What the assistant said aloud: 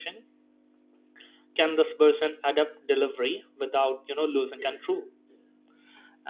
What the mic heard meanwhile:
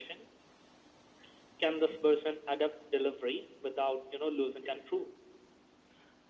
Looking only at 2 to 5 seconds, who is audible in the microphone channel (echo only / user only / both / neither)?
echo only